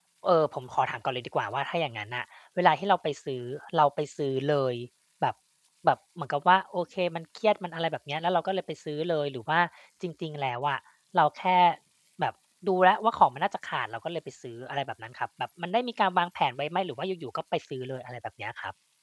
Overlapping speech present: No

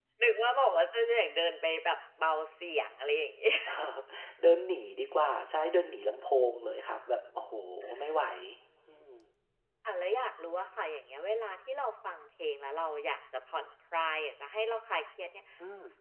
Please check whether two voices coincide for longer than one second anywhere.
No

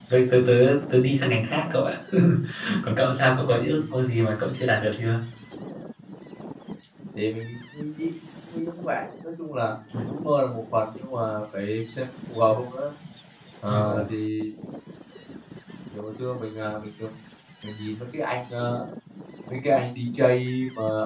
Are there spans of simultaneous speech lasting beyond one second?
No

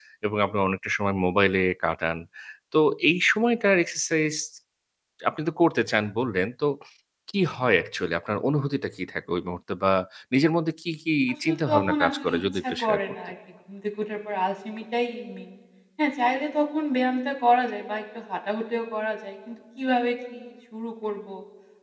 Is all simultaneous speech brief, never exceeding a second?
No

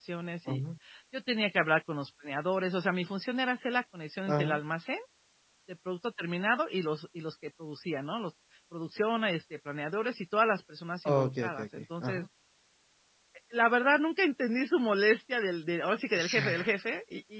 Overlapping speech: Yes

